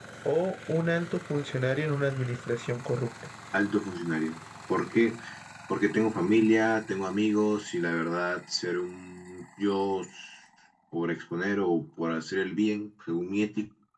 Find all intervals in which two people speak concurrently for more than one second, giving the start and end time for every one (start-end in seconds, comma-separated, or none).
none